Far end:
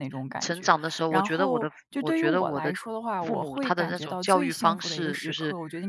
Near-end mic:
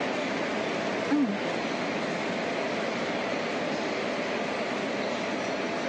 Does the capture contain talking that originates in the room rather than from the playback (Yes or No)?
Yes